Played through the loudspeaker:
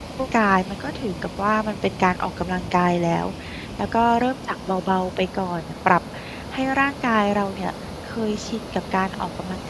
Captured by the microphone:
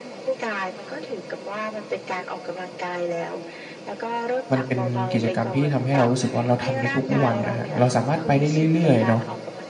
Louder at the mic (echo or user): user